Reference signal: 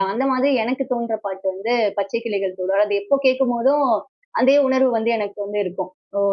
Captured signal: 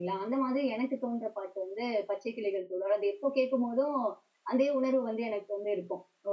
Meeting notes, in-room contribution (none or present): none